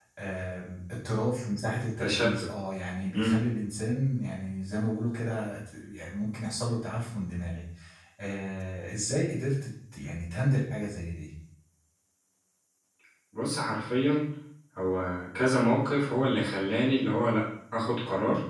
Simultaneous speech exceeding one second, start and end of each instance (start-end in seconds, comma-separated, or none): none